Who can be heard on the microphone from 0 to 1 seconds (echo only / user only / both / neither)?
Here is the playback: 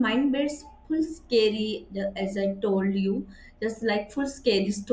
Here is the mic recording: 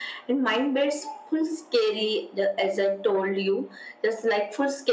echo only